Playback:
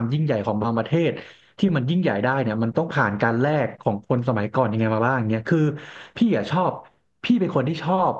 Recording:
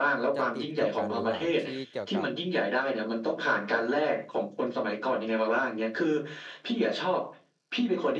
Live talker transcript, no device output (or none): จะติดกับการดูหนังที่เกี่ยวกับ